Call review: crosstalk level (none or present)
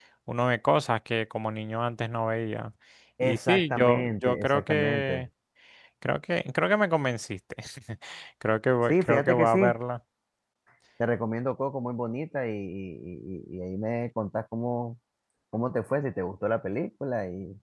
present